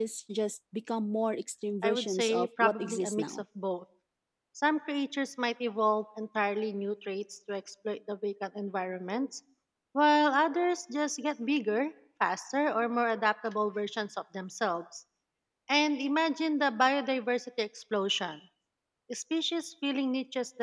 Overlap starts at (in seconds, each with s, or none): 1.8 s